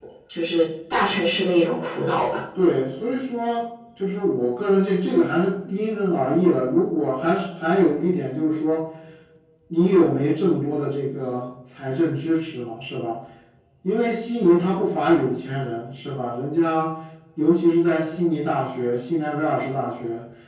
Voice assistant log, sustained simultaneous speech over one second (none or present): none